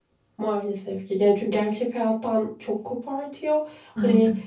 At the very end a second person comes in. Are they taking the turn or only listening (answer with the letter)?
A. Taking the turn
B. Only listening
B